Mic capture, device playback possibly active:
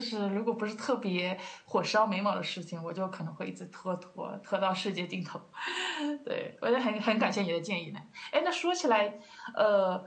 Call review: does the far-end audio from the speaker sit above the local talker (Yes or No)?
Yes